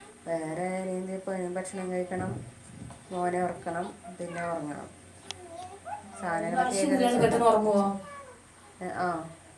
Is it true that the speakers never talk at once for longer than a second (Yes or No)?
No